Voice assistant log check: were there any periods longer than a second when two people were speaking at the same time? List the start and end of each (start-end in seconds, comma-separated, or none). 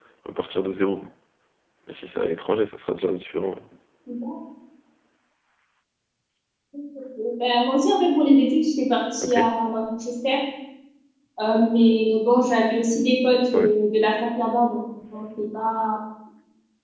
none